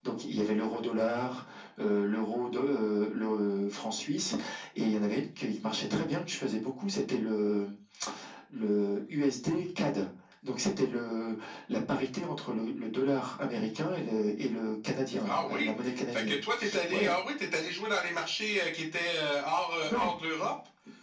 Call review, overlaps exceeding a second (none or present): none